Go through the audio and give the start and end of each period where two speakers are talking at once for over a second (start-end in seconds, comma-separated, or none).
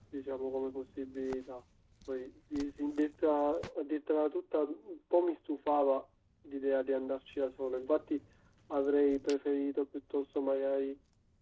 none